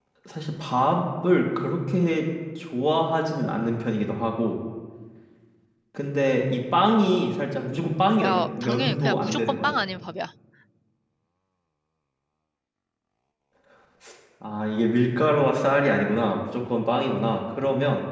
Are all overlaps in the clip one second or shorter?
No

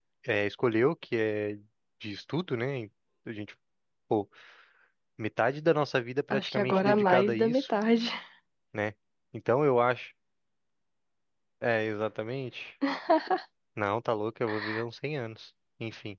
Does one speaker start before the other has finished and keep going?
Yes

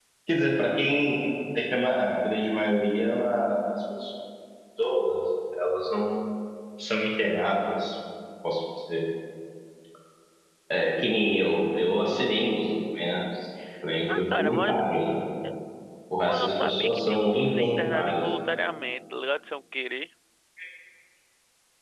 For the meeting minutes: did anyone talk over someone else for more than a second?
Yes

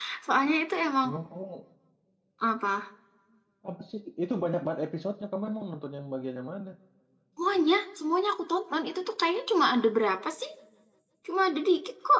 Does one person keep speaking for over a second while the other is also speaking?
No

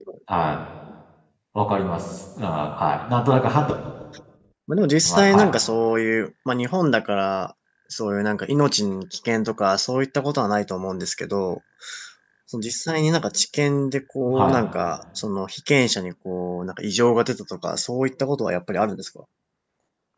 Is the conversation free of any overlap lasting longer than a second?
Yes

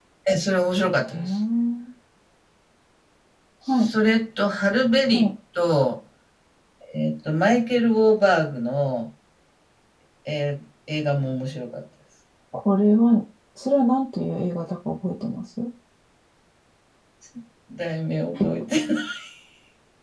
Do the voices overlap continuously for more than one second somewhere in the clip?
No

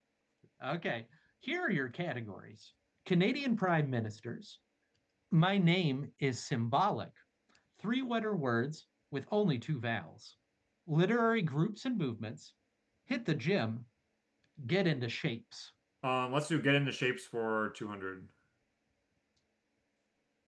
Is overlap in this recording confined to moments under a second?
Yes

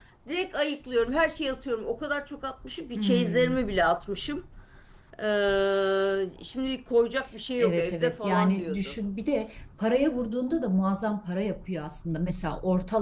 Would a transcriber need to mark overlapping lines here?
Yes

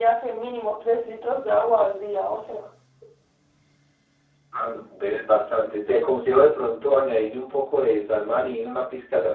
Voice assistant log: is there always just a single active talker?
Yes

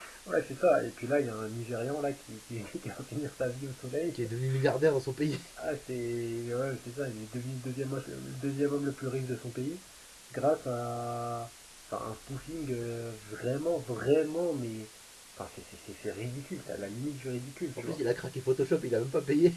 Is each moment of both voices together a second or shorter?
Yes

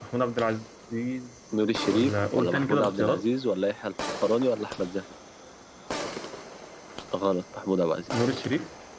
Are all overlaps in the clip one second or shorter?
No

